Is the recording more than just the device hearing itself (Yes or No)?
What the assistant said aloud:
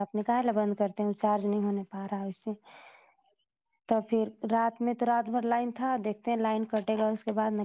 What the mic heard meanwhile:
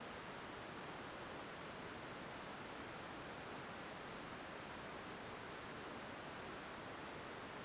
No